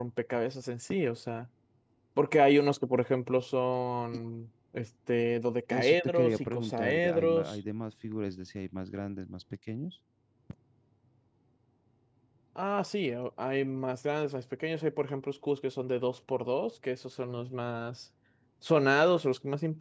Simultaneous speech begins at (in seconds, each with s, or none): 5.7 s